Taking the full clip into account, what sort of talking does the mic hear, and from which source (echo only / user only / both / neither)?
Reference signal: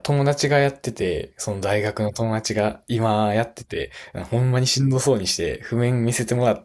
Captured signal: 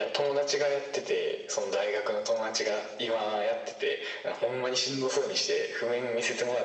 echo only